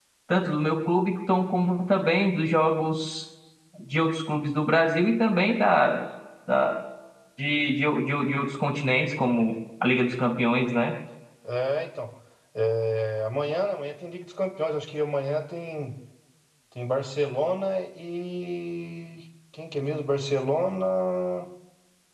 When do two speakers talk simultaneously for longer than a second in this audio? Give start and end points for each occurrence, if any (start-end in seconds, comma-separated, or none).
none